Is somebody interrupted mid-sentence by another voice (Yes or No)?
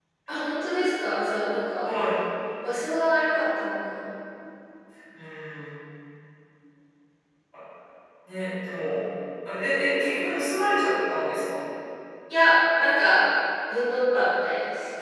No